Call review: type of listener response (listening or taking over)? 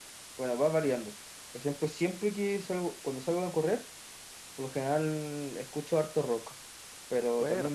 listening